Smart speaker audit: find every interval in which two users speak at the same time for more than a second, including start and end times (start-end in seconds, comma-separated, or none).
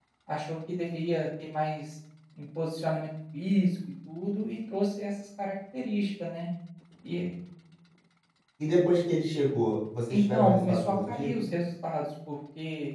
10.1-11.3